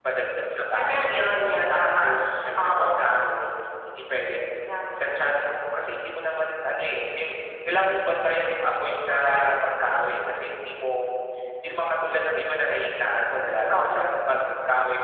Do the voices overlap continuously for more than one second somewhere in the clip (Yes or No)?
No